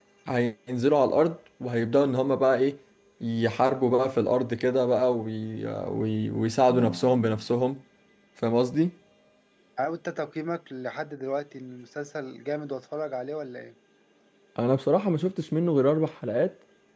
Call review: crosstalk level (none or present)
none